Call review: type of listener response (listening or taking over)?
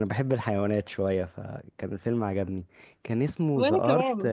listening